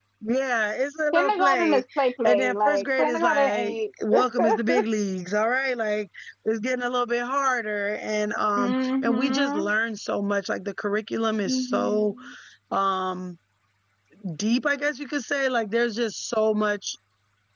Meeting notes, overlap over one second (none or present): present